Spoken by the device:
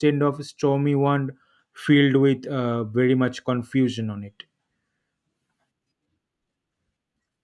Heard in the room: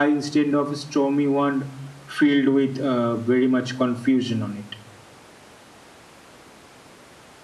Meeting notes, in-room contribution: none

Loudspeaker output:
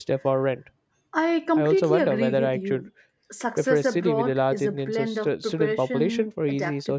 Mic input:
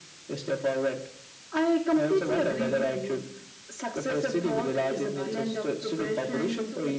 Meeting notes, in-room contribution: present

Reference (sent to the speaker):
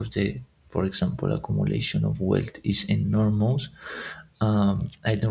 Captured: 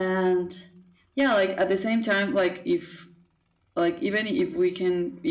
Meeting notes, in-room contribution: present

